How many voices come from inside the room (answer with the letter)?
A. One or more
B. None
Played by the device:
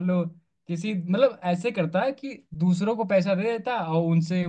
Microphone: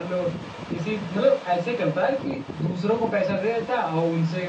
B